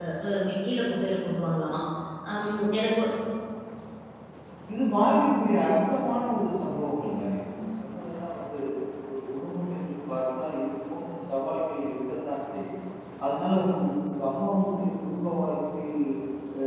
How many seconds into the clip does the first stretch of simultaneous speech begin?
none

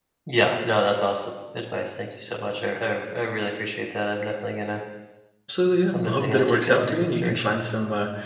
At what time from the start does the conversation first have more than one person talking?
6.0 s

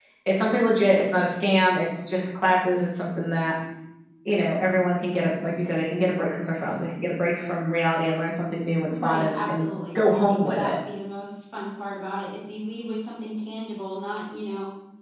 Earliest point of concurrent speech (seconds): 8.9 s

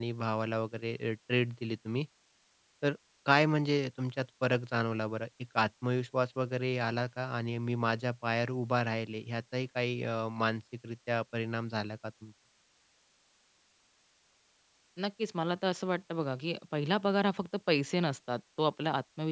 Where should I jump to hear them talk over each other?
none

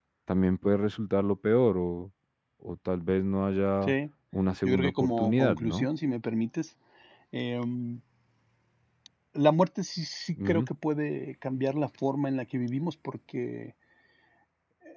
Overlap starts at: 4.6 s

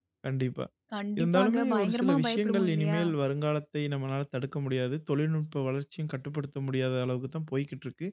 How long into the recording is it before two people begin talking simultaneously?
1.2 s

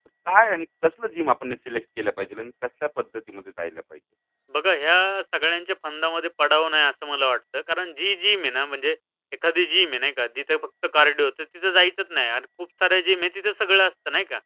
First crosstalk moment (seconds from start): none

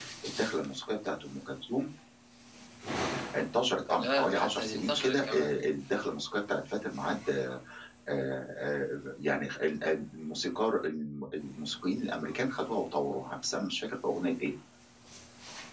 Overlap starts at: 3.9 s

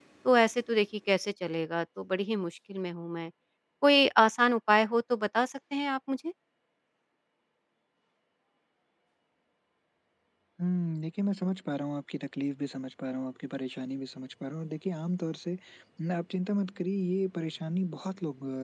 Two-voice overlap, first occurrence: none

